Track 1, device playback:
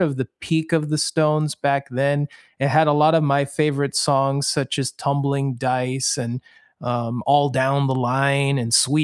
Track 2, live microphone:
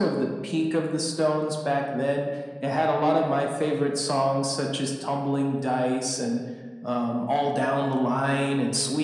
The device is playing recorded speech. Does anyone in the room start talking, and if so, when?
none

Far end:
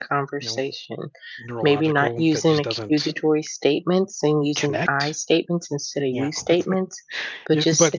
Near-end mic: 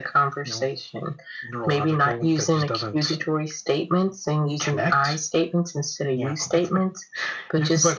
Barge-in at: none

